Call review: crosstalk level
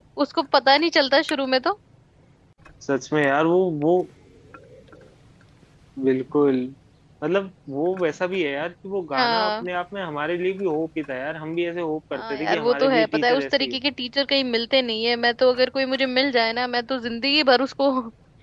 present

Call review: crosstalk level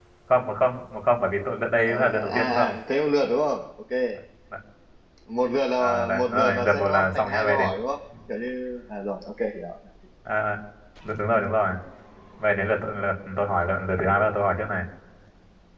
present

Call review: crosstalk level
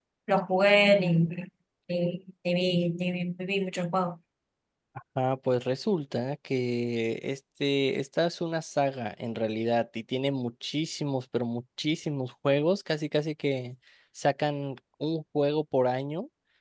none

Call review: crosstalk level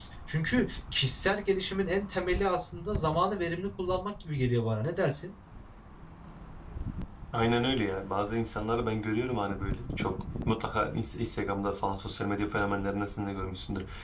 none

